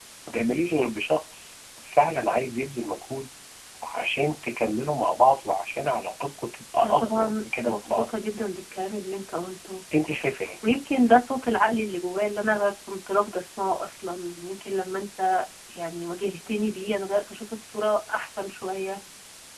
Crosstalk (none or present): present